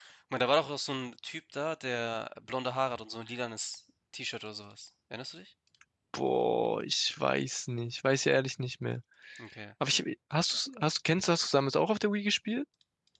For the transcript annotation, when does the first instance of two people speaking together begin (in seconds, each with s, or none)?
none